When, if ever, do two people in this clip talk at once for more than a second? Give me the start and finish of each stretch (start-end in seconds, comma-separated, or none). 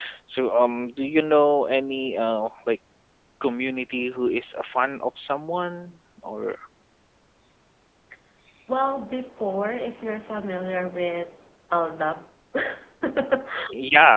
none